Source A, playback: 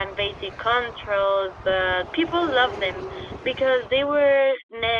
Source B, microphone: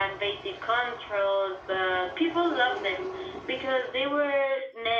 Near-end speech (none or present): none